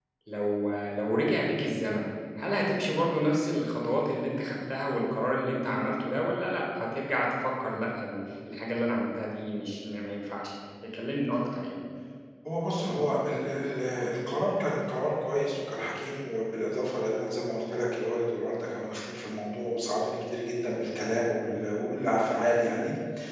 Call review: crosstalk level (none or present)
none